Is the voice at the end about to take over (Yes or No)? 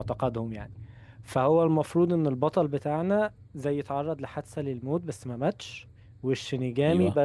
No